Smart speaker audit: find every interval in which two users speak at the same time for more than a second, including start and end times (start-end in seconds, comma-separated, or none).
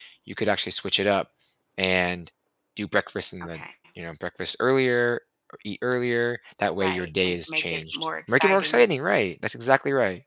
6.8-8.8